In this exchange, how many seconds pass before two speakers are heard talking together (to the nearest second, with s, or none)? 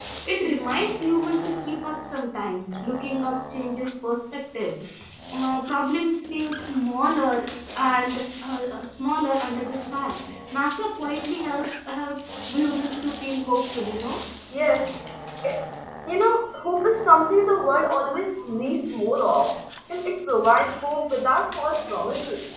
none